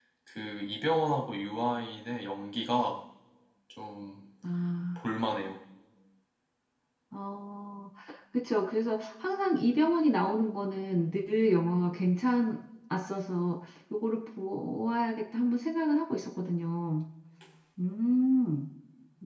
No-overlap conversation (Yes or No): Yes